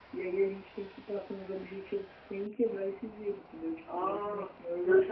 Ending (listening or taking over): taking over